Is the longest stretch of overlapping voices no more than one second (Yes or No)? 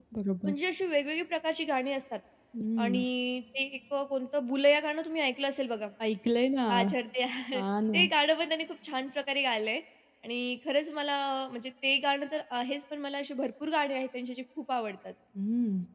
Yes